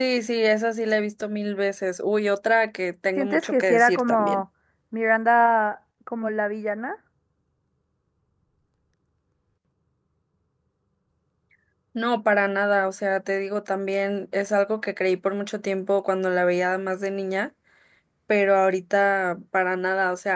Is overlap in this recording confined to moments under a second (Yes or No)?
No